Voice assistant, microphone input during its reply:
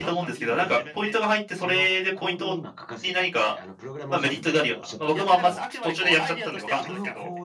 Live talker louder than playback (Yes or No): Yes